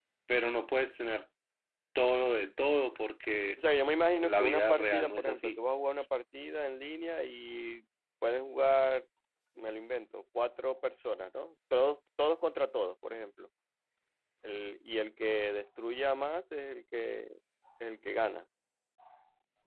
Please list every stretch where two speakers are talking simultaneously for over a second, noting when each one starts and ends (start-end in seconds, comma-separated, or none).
4.2-5.6